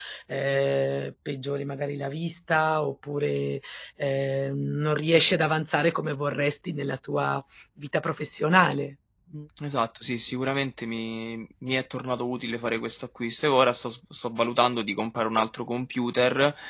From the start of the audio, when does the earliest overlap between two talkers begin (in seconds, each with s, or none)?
none